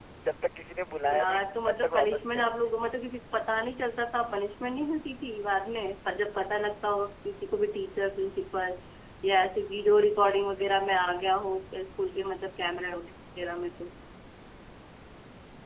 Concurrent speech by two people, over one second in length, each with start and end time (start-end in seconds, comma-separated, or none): 1.1-2.7